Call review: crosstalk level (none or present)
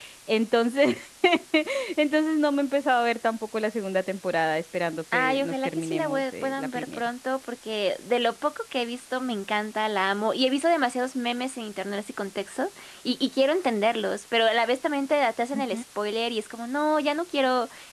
present